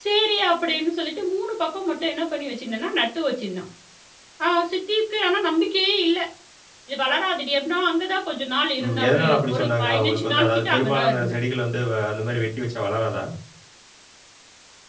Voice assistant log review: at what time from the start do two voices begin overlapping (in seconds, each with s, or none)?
8.8 s